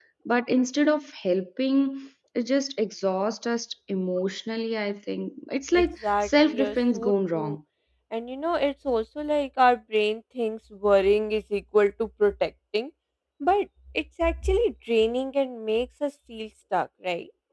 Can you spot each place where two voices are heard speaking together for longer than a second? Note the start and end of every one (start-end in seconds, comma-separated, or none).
5.7-7.6